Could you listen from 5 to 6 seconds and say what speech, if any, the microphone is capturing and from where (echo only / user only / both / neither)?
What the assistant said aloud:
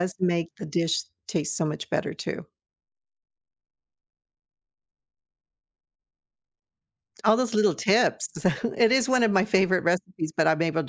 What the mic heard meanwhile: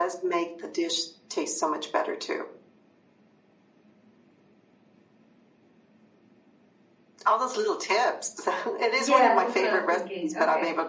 neither